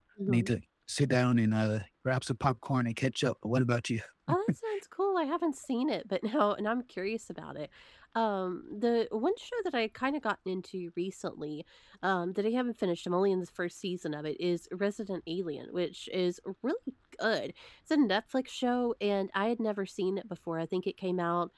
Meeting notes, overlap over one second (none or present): none